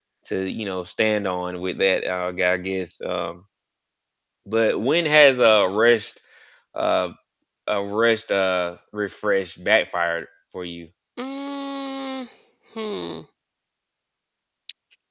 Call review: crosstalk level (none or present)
none